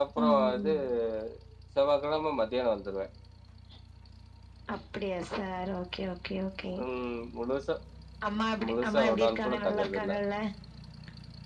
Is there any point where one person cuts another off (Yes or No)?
Yes